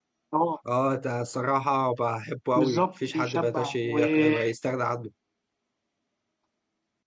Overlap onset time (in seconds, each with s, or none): 2.5 s